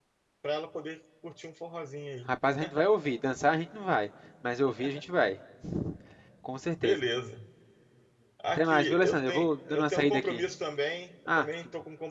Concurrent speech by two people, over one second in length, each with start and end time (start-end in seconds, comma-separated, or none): 8.6-10.4